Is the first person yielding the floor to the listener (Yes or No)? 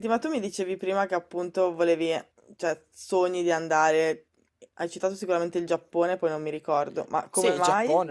Yes